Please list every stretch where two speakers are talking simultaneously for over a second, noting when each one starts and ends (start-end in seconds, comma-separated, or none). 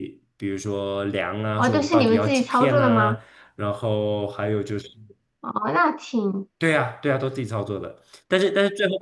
1.6-3.2